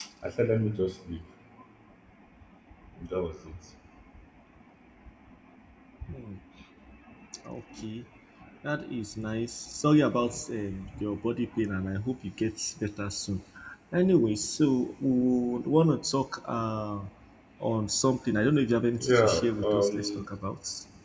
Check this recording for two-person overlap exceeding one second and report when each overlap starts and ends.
19.0-20.2

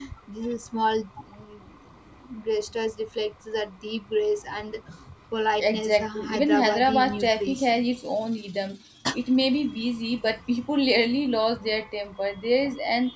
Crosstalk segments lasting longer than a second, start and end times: 5.6-7.7

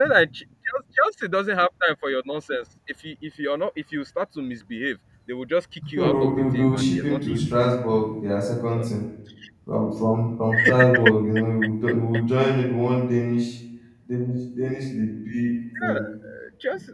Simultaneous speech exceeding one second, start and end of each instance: 6.0-7.5

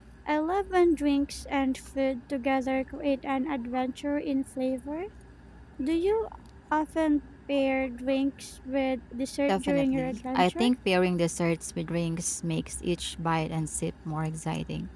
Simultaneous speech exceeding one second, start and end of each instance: 9.5-10.7

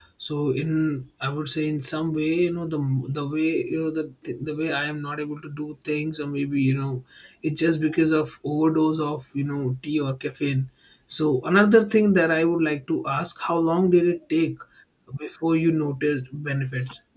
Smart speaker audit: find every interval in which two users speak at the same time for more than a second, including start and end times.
none

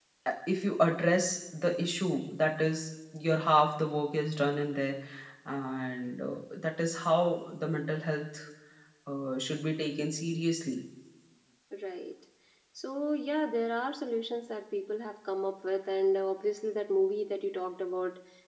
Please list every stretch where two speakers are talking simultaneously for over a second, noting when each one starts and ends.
none

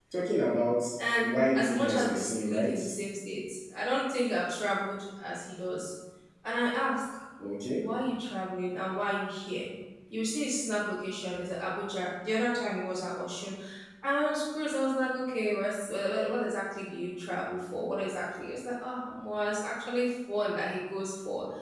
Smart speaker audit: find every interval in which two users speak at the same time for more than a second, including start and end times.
1.2-2.8

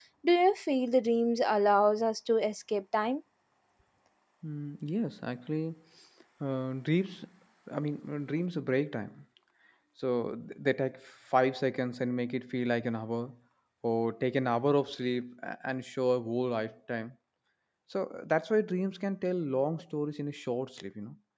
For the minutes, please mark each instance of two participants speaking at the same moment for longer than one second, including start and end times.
none

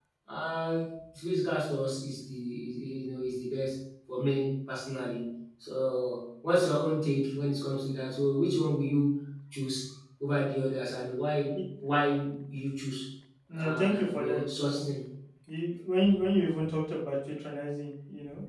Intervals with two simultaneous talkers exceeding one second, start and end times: 13.5-14.8

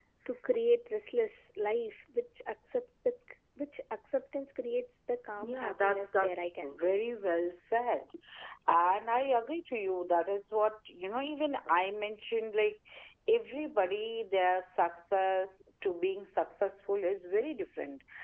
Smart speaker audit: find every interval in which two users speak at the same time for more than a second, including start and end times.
5.4-7.0

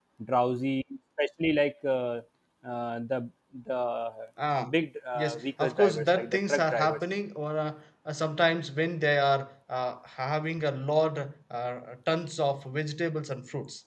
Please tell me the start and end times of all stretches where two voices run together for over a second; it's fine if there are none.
5.2-7.0

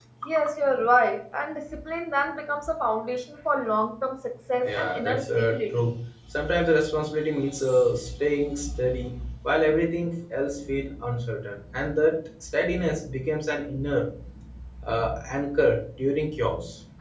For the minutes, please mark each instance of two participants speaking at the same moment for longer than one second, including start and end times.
4.6-5.9

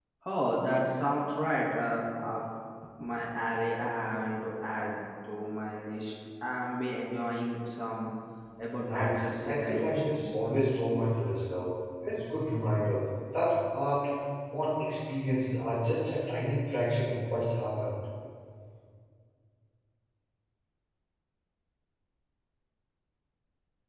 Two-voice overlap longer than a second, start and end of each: 8.8-10.3

